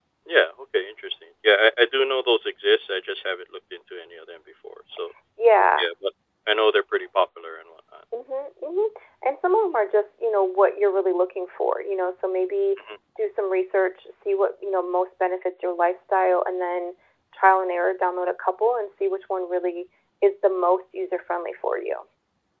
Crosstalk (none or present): none